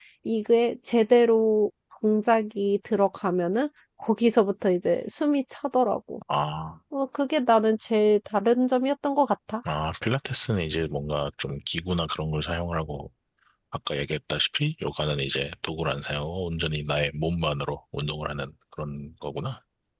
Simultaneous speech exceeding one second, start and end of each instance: none

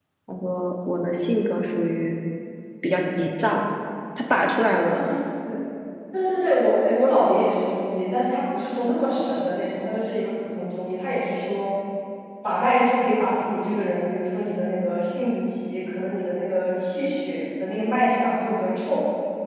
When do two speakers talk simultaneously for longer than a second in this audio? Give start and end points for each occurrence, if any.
none

